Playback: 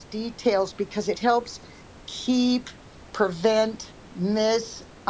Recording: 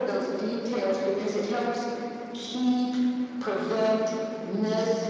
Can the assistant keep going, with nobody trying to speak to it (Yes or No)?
Yes